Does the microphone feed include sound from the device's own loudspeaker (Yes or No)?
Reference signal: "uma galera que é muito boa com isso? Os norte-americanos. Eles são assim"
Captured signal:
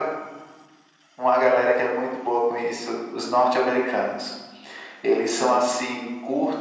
Yes